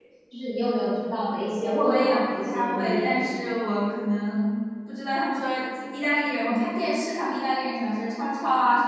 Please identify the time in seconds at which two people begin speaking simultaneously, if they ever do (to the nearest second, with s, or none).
2 s